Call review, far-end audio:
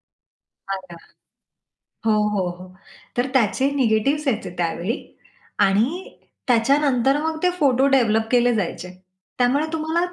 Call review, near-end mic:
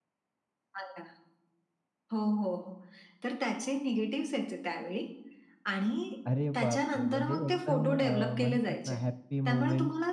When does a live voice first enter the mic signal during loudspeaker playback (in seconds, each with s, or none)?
6.3 s